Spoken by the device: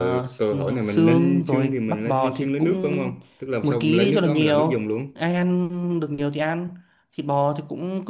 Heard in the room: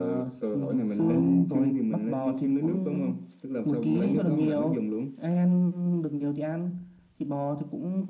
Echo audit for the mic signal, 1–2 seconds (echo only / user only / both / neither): echo only